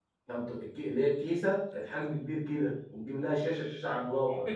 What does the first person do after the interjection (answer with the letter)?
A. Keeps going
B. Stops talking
B